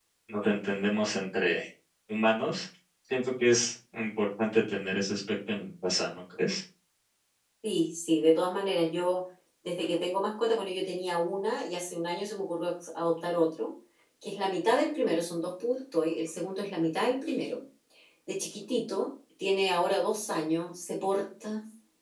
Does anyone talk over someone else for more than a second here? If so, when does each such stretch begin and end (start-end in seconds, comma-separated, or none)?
none